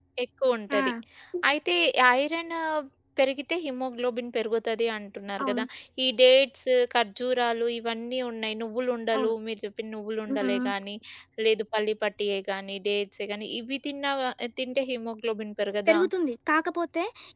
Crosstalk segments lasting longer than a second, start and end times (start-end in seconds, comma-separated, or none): none